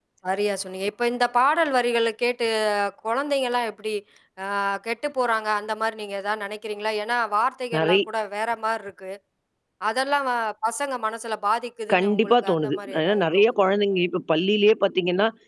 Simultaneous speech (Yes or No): Yes